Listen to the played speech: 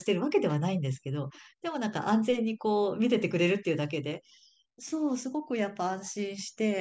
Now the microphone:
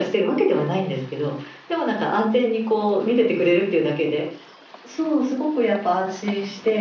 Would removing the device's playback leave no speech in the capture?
Yes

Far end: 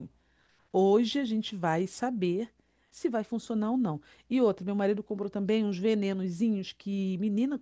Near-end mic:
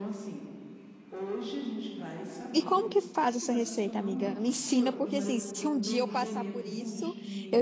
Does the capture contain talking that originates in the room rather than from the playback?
Yes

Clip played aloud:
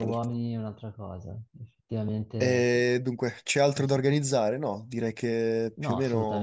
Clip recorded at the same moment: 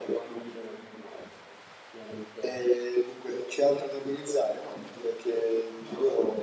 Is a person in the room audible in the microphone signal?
No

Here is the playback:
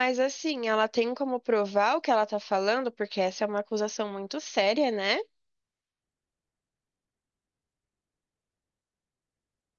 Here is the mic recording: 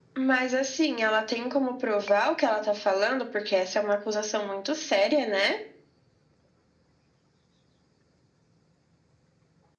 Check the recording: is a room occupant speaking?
No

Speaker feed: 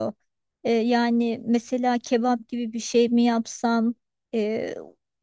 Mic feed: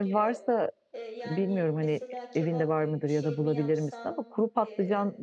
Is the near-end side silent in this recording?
No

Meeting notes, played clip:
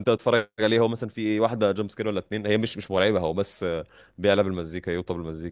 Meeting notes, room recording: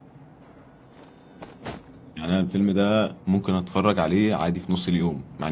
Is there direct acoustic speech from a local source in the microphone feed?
Yes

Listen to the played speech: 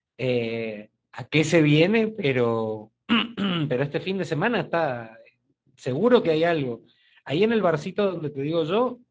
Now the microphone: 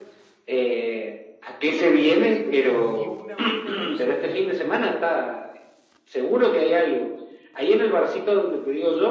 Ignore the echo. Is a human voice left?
Yes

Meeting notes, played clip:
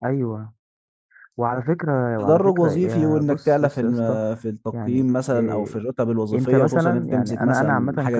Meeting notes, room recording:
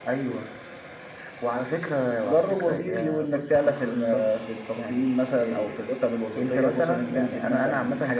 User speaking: No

